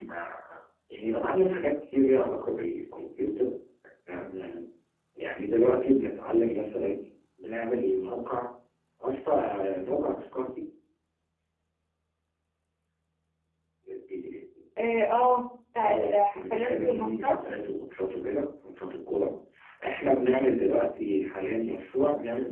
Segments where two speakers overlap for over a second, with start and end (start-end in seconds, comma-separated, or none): 15.8-17.4